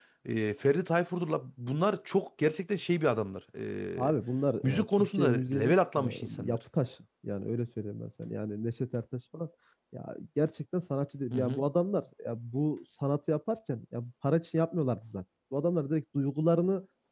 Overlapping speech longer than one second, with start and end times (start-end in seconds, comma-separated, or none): 4.6-6.6